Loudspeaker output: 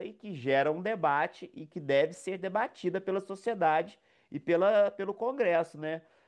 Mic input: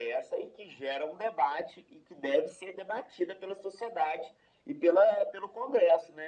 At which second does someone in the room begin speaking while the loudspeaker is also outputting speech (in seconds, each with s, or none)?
none